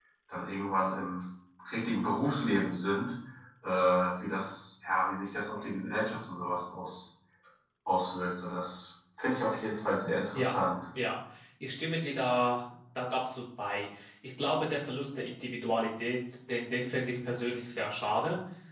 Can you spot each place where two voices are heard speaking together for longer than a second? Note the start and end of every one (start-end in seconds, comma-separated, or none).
none